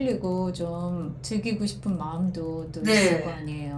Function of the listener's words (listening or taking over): taking over